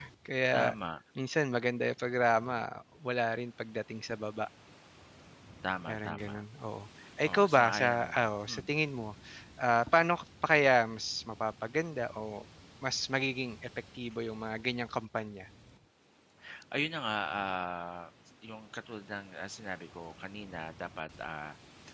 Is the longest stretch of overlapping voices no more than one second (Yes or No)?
No